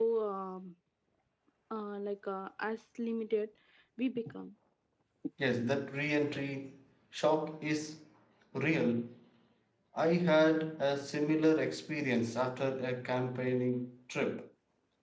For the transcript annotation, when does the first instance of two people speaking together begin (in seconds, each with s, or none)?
none